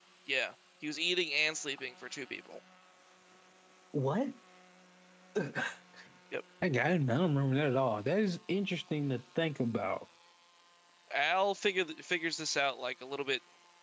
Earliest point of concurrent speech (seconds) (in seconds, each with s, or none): none